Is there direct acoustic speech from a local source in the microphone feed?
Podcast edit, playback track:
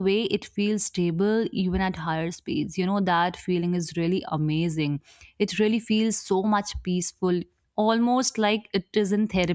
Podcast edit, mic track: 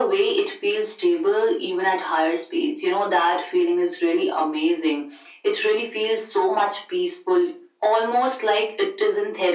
No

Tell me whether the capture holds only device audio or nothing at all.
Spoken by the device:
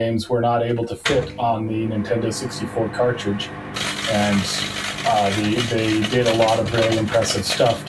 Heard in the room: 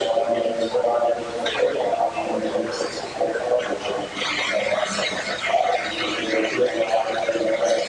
Yes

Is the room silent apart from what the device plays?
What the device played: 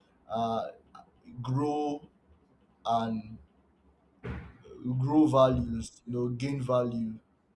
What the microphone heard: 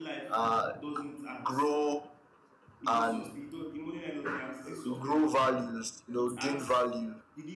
No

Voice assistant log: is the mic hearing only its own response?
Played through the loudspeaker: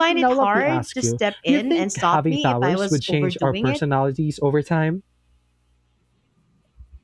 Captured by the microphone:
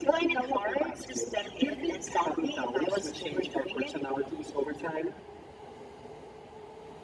Yes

